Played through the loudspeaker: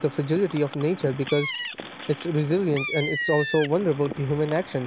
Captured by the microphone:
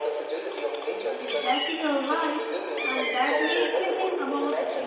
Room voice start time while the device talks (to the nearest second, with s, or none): 1 s